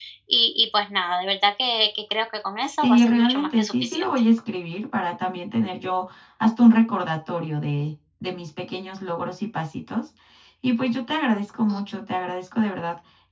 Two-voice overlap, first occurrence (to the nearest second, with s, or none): 3 s